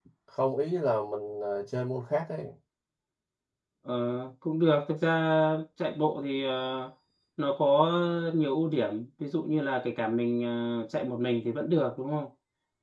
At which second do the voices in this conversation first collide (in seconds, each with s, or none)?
none